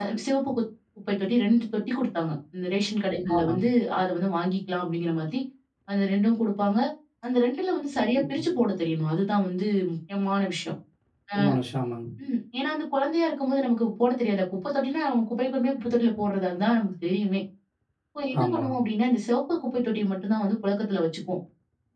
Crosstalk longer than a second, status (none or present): none